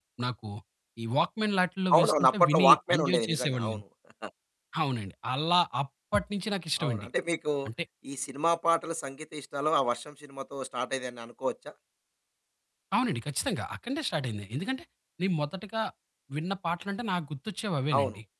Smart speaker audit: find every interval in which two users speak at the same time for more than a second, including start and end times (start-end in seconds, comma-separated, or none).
1.9-3.8